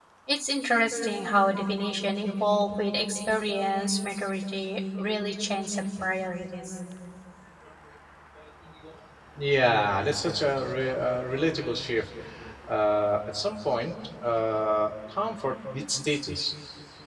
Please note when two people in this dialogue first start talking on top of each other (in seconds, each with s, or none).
none